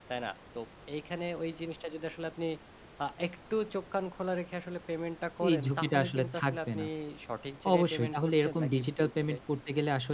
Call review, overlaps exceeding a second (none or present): present